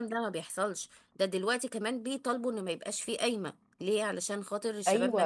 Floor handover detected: Yes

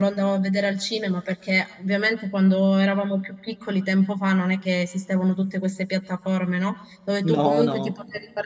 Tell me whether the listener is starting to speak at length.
No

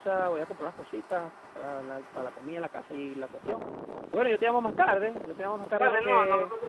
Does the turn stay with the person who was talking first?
No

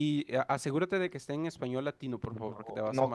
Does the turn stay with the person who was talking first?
No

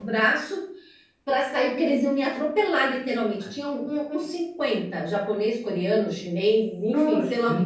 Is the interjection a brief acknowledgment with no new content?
Yes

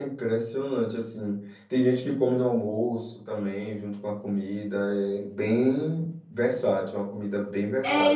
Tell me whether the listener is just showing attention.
No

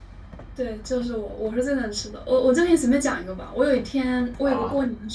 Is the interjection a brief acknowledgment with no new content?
Yes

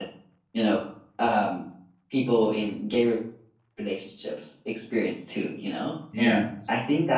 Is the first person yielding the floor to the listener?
No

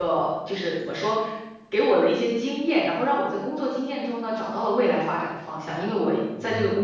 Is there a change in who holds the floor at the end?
No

